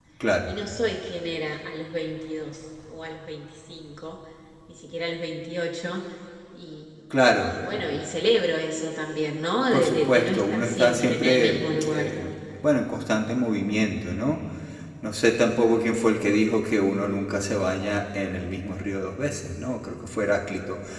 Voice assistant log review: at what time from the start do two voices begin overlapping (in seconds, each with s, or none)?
9.7 s